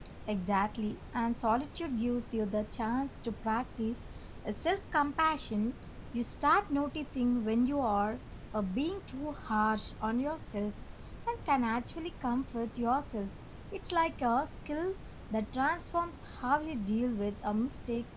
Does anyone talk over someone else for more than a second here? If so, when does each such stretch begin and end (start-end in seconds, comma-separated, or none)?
none